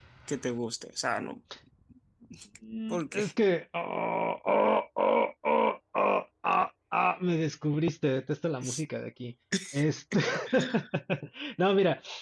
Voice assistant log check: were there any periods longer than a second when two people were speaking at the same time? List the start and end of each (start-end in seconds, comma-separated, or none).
none